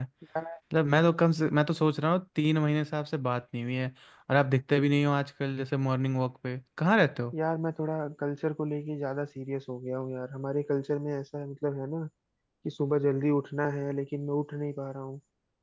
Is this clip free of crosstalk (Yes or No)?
Yes